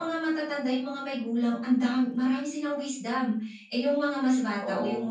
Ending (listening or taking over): listening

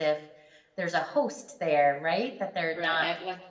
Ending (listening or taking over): taking over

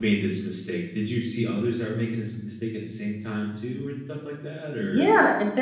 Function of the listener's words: taking over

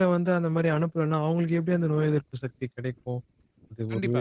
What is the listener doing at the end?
listening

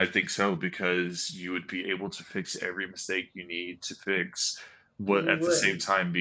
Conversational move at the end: listening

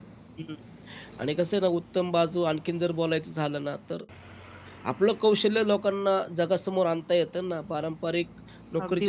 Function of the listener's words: listening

